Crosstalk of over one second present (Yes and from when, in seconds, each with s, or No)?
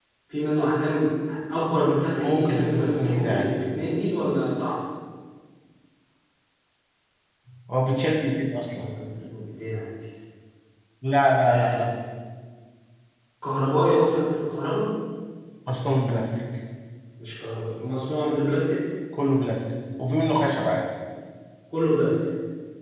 Yes, from 2.2 s